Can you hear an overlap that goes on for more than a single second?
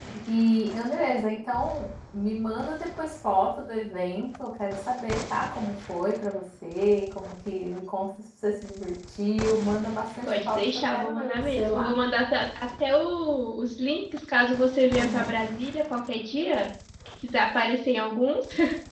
Yes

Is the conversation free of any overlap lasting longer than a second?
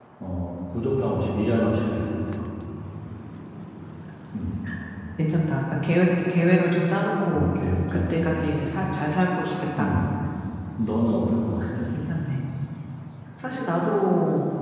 Yes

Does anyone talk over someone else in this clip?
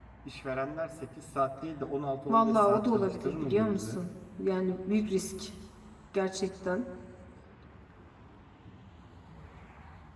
Yes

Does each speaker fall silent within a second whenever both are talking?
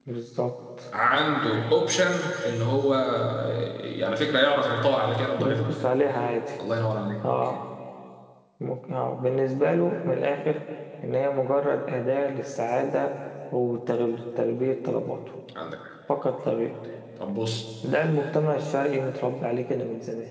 Yes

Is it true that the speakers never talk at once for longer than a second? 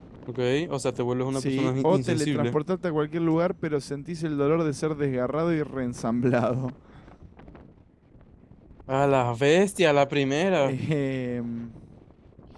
No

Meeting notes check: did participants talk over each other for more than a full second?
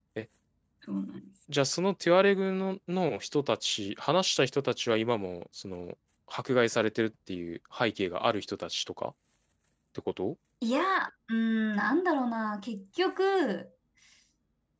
No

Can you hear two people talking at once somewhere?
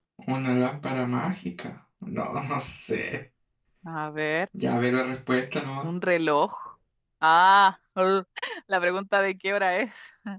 No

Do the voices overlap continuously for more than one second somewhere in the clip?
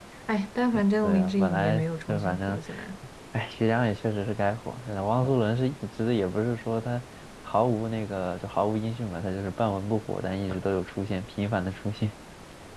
Yes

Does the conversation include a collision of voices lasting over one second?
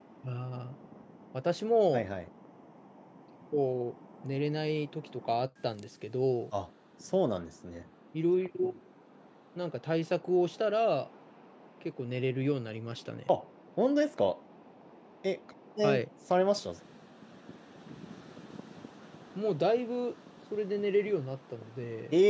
No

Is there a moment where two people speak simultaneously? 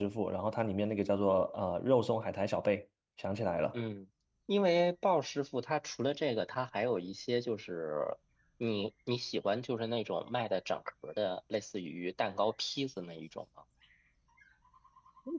No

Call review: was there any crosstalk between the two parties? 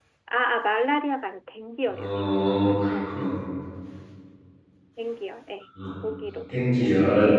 Yes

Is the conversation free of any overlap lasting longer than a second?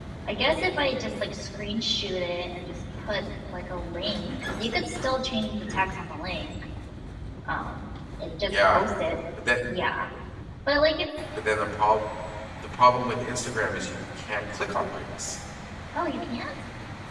Yes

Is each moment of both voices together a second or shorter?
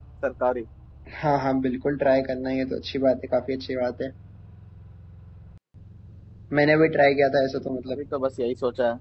Yes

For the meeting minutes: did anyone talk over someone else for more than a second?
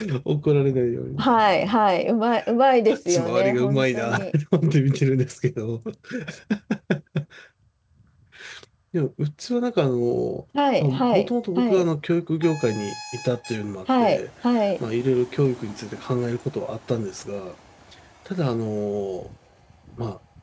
Yes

